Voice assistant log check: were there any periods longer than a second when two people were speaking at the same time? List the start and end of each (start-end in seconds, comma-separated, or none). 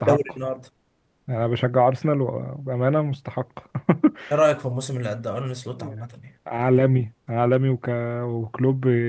none